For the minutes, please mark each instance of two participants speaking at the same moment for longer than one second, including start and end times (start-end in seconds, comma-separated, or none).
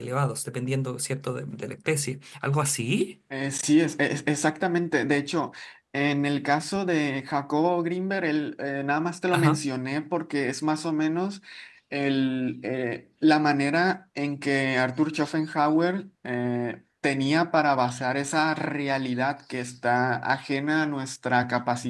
none